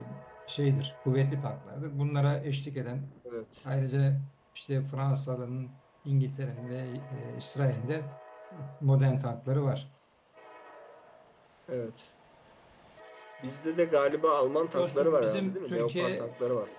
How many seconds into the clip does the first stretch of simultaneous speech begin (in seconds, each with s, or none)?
14.7 s